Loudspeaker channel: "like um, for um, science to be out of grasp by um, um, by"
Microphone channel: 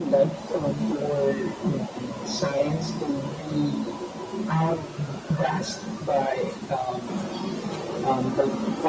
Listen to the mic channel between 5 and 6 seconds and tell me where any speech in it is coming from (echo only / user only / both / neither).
echo only